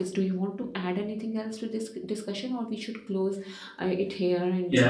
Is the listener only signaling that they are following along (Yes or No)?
No